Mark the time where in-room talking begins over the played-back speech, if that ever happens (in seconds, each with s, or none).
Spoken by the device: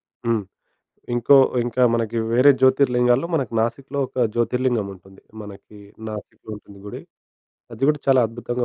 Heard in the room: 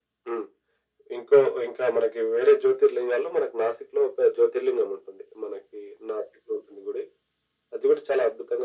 none